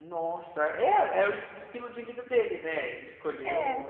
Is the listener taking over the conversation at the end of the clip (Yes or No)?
No